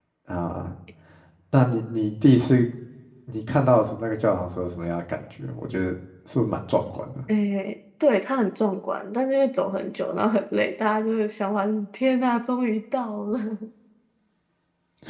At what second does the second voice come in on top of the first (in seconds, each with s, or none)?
none